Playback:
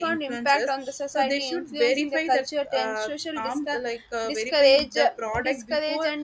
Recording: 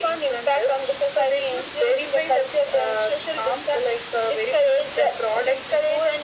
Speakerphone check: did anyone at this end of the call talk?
No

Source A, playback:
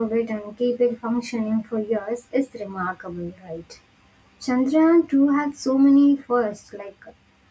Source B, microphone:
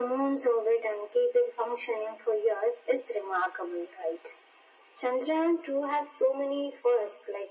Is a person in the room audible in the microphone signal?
No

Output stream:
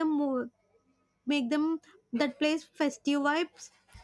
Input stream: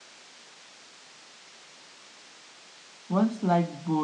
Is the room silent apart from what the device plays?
No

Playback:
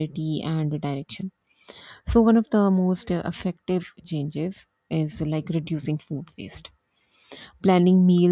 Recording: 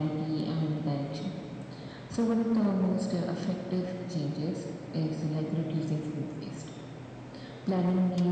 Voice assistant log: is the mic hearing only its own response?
Yes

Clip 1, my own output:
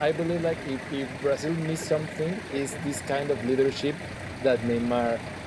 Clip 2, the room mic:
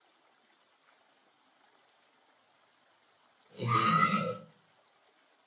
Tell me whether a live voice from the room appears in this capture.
Yes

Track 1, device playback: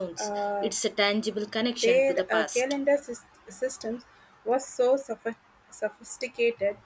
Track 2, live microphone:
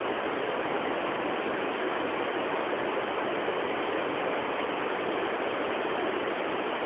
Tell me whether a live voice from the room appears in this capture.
No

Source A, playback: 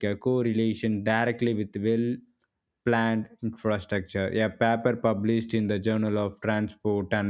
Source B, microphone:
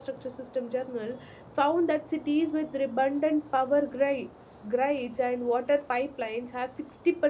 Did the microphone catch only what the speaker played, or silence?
No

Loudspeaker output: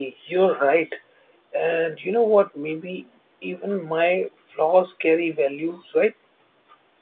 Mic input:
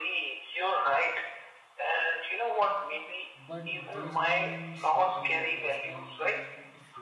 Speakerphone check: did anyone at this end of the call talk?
Yes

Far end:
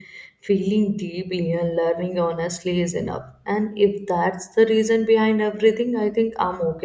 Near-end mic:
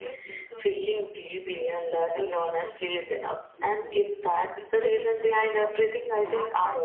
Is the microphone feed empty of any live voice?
No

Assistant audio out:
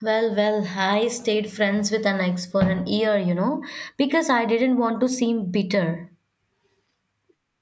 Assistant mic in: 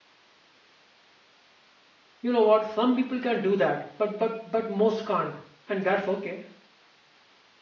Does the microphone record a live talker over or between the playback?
Yes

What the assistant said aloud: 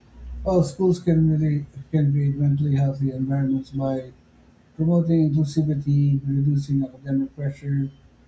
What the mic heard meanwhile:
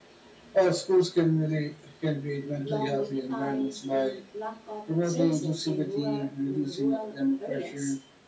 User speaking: Yes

